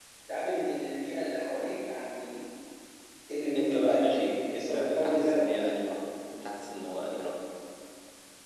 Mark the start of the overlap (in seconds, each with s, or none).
3.5 s